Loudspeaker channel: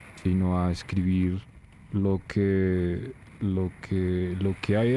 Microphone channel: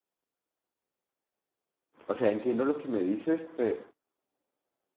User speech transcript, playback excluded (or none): o sea, entiendo lo que me dices, pero,